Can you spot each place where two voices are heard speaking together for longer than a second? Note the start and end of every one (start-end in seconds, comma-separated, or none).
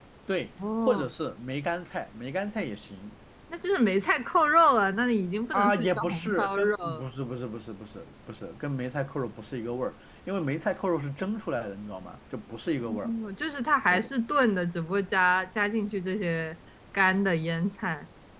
5.5-7.0